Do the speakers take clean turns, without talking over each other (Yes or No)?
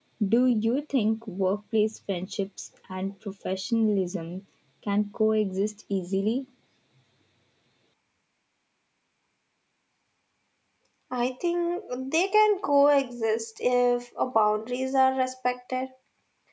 Yes